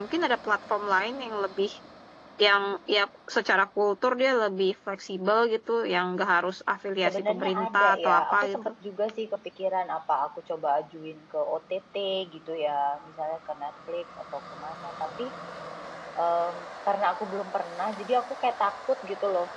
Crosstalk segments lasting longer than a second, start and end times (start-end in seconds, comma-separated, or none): 7.0-8.7